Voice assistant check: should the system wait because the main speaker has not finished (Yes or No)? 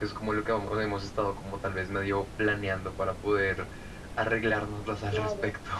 No